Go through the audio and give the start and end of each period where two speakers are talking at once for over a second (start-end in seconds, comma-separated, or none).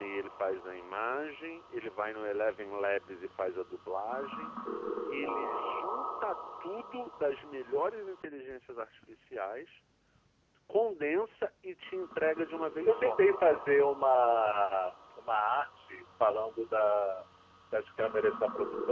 none